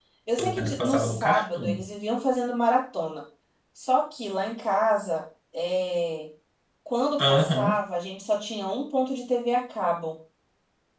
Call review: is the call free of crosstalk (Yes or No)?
No